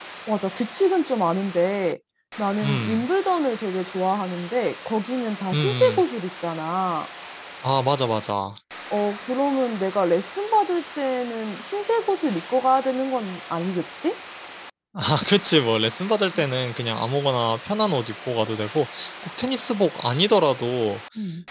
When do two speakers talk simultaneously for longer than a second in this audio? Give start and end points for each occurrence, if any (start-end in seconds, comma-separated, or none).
none